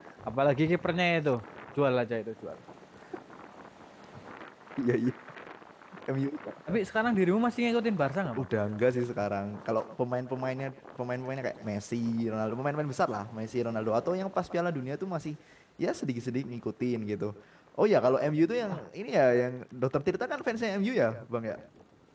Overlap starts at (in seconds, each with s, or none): none